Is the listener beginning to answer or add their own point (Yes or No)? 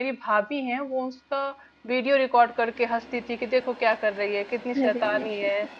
No